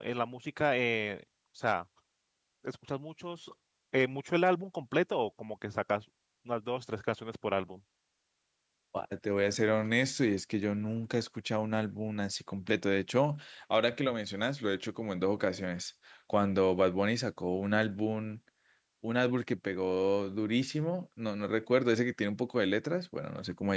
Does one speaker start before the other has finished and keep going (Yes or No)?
No